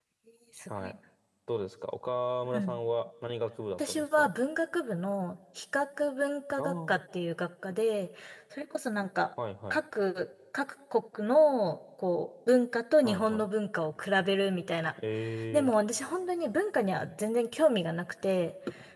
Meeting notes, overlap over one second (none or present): none